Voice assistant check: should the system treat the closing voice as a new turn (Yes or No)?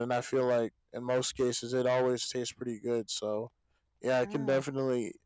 No